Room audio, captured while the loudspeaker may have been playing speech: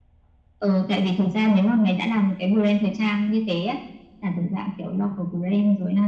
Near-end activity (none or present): none